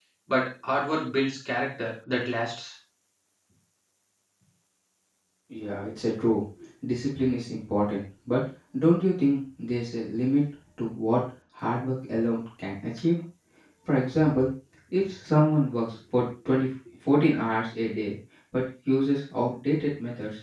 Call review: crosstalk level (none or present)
none